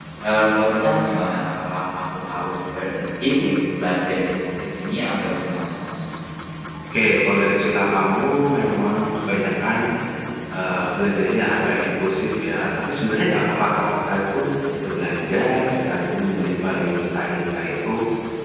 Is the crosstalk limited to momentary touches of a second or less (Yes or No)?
Yes